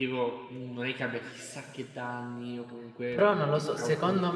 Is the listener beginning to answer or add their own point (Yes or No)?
Yes